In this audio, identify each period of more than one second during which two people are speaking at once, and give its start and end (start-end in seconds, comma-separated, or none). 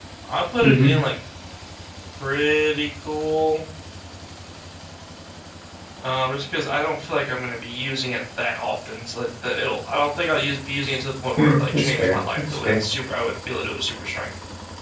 11.4-12.8